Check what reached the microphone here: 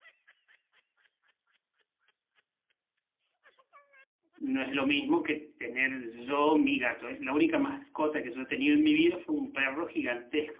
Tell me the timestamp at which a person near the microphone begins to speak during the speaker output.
4.3 s

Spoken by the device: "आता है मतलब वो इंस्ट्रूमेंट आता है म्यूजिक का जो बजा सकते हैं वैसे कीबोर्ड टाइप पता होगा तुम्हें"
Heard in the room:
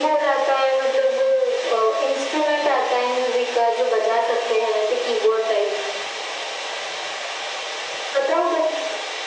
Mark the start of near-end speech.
none

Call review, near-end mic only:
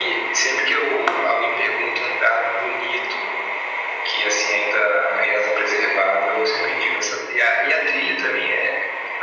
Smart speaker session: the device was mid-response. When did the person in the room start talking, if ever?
none

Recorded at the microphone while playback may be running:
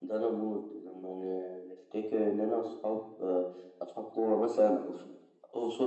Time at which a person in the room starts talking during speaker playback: none

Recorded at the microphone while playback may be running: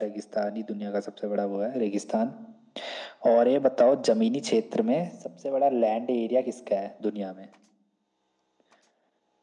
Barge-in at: none

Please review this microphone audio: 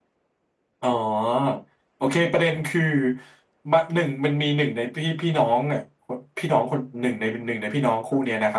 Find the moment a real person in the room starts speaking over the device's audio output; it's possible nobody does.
none

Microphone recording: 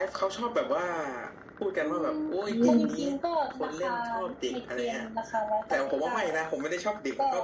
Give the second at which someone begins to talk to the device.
2.4 s

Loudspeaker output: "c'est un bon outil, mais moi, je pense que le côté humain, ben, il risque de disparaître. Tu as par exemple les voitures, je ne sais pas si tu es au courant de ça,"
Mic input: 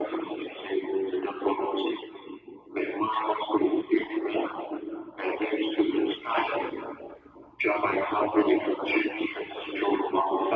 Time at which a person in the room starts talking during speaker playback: none

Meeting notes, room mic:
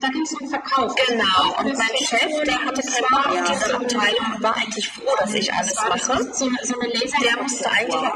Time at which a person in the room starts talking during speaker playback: 3.2 s

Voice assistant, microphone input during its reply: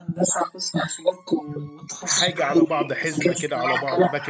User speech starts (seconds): 2.0 s

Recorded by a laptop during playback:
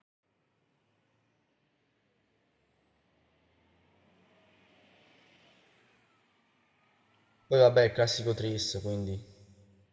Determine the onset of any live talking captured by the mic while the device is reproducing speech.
7.5 s

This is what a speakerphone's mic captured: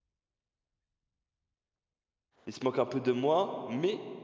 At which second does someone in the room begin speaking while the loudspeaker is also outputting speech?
2.5 s

